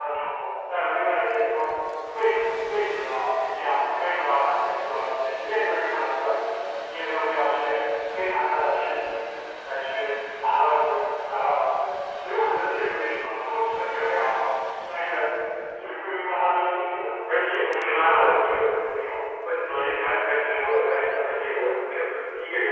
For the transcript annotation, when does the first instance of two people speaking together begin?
17.4 s

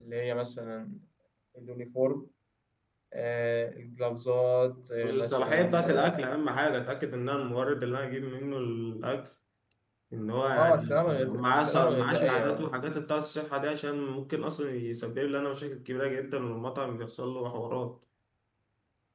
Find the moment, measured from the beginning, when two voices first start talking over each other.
5.0 s

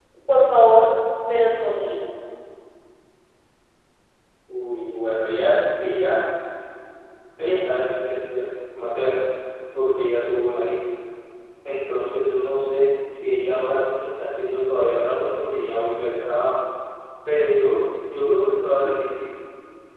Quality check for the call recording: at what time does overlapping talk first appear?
none

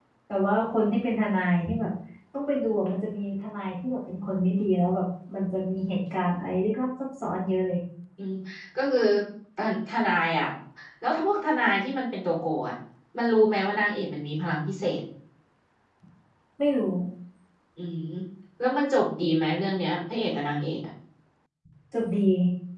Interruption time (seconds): none

